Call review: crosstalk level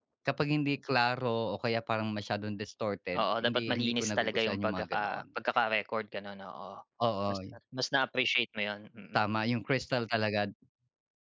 present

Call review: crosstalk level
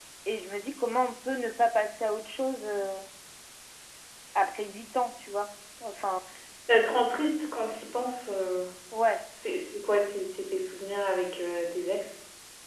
none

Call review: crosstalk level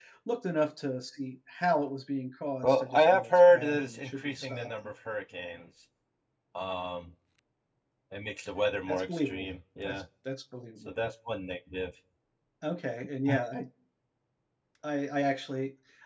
present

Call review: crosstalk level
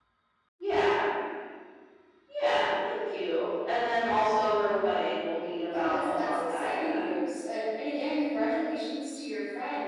present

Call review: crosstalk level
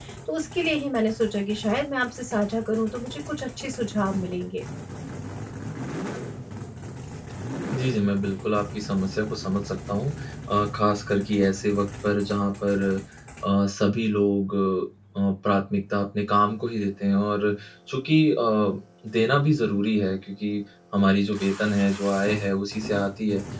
none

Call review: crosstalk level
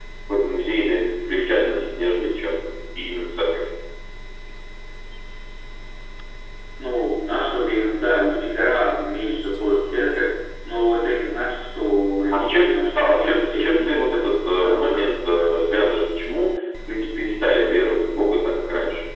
present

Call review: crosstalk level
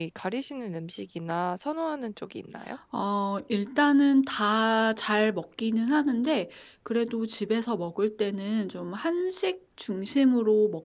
none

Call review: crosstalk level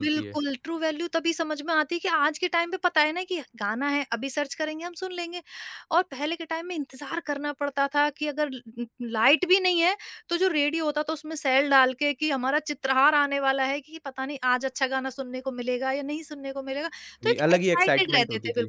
present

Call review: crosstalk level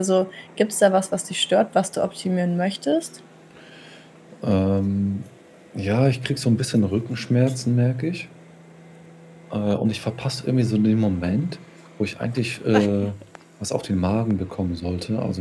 none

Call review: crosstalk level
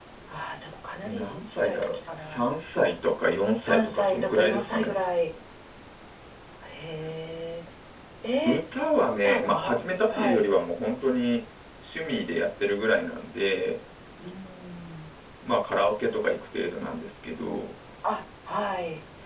present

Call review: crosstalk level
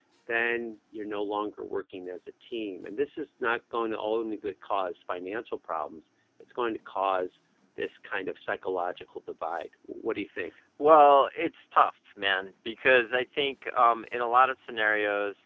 none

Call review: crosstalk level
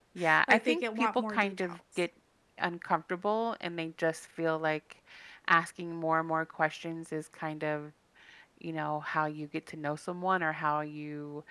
present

